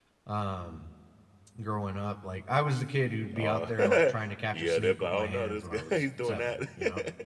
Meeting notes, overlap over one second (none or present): present